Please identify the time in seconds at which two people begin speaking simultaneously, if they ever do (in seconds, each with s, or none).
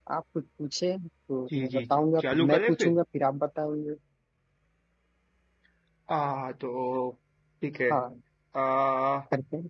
1.5 s